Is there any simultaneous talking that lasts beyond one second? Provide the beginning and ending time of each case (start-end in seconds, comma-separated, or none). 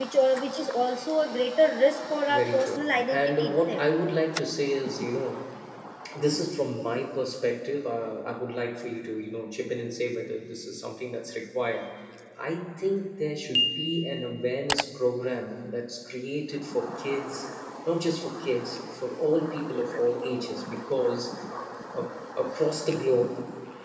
2.3-3.8